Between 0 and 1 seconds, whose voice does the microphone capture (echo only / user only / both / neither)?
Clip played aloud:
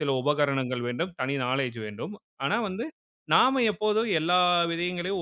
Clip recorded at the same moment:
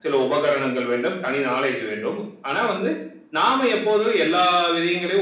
echo only